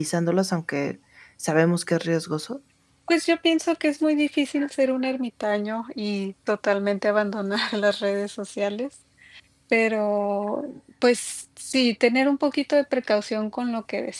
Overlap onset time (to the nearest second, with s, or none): none